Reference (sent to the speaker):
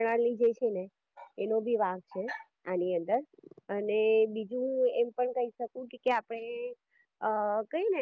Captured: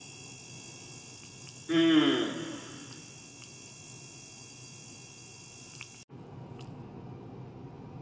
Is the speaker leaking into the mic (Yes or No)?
No